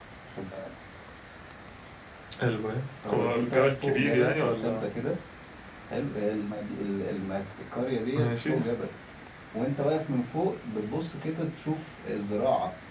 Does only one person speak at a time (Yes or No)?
No